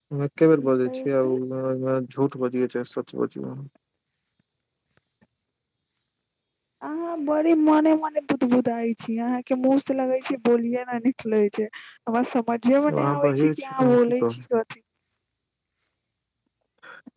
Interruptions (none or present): present